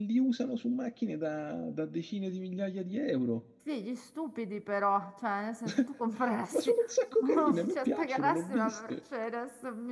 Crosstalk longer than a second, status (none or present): present